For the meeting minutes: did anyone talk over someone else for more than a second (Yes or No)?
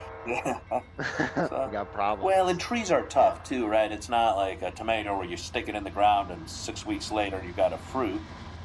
No